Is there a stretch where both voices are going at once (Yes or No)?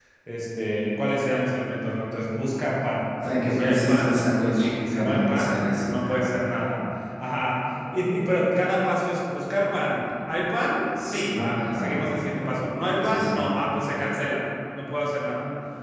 Yes